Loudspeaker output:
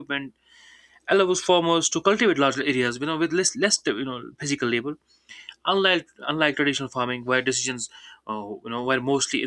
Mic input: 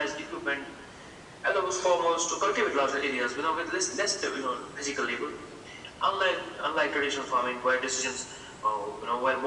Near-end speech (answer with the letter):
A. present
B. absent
B